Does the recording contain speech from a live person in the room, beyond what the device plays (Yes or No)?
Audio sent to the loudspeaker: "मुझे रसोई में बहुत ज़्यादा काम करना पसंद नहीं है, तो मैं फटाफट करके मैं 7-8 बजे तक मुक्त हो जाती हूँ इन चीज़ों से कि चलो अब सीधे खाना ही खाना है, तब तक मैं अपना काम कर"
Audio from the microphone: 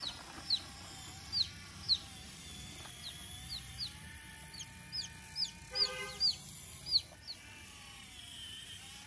No